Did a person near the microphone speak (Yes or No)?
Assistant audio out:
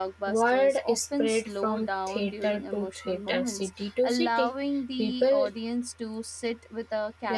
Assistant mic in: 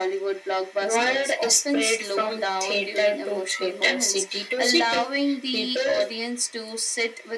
No